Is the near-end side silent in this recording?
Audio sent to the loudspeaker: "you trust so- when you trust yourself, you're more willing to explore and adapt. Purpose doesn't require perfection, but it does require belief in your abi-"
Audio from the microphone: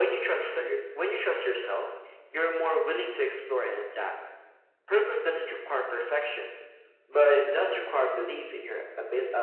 Yes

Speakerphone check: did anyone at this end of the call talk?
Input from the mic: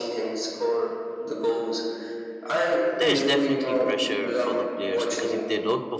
Yes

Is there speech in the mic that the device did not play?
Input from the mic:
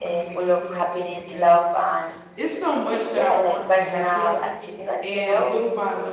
Yes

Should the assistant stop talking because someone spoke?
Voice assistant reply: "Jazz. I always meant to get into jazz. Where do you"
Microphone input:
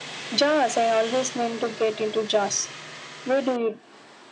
No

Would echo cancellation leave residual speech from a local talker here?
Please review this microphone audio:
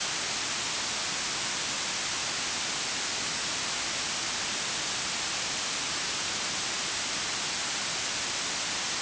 No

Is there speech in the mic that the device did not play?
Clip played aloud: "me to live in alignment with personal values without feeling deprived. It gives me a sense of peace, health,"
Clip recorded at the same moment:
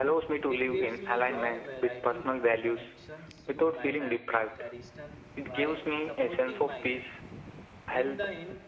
Yes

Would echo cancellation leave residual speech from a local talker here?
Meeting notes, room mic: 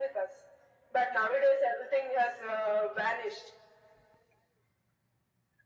No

